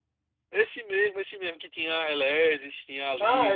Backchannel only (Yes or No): No